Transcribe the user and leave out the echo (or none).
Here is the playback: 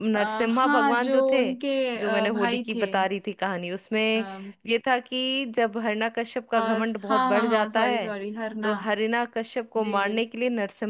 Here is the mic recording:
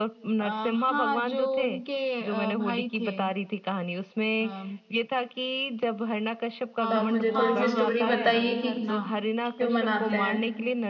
तो आप मुझे थोड़ी सी स्टोरी बताइए कि क्यों मनाते हैं